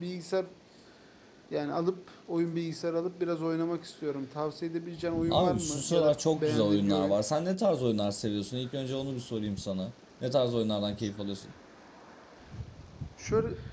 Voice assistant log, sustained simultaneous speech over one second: present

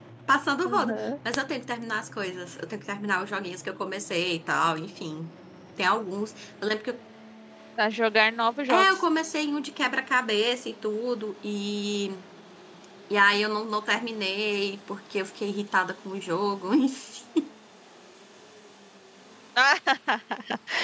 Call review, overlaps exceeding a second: none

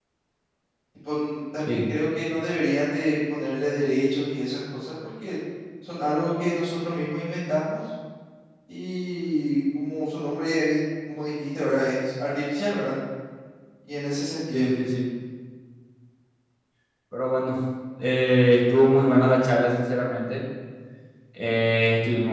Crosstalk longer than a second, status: none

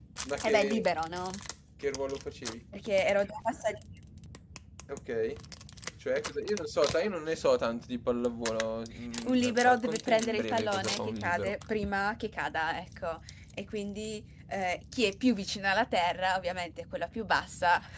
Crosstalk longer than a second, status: present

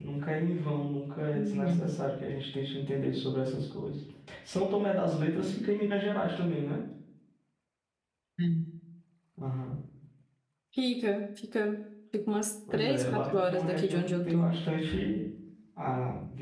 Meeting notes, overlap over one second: present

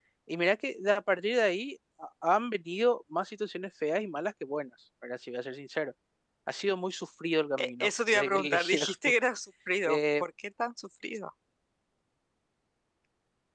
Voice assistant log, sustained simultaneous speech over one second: present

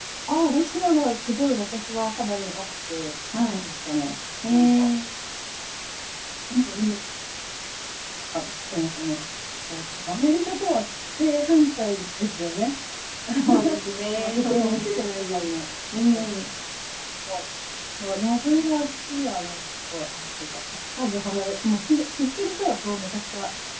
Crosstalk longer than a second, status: present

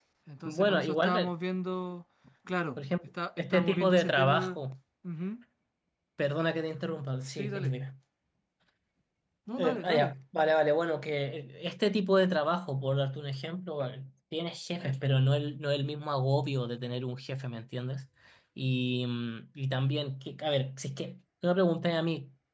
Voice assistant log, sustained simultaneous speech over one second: present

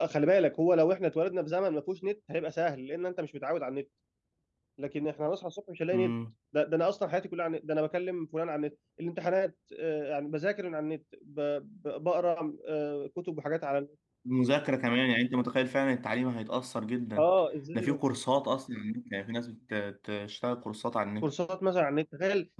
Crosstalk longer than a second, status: none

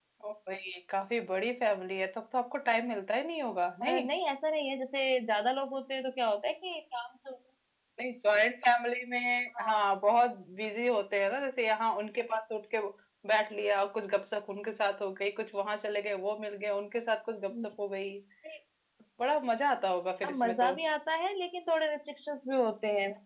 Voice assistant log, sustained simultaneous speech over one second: none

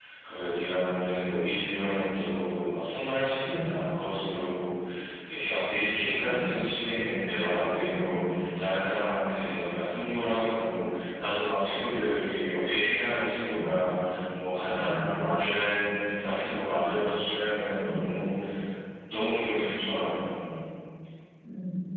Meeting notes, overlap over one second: none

